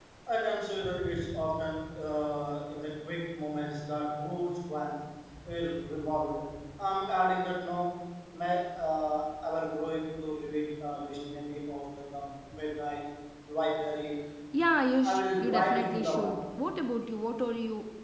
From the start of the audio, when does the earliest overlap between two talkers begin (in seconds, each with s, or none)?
15.0 s